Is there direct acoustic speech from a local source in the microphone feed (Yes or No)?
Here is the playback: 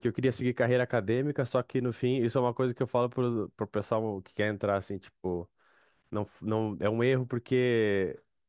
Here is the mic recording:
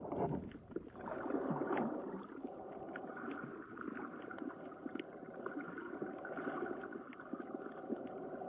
No